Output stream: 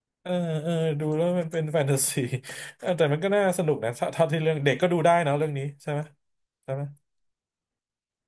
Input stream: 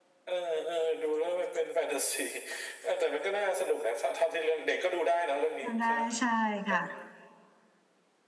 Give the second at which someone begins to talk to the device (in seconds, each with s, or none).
5.6 s